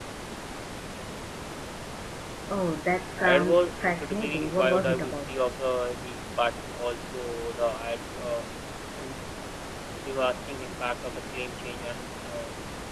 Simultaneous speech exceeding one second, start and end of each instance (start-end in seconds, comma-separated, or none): 3.2-5.1